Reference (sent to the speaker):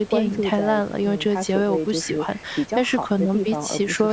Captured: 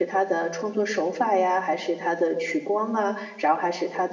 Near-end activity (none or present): present